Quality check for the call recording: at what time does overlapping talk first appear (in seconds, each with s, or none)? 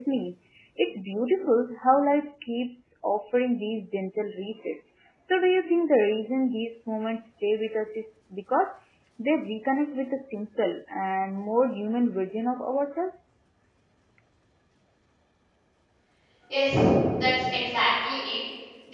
none